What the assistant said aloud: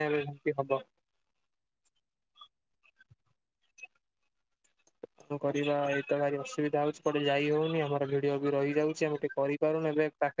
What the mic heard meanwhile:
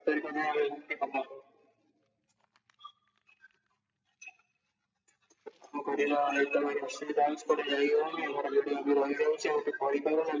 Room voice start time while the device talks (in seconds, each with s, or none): none